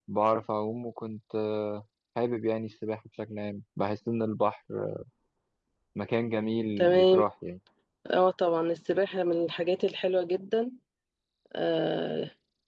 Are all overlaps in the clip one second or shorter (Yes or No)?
Yes